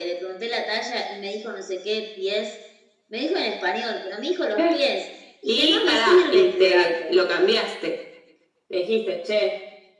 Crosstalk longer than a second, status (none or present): present